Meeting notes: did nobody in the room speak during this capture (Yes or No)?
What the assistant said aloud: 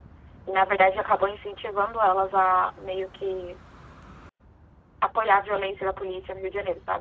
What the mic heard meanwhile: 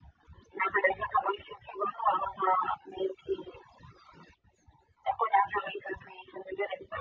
Yes